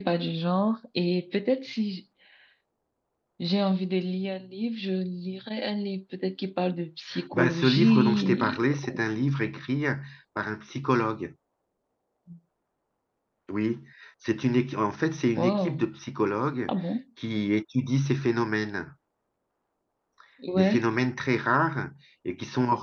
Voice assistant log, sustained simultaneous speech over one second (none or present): present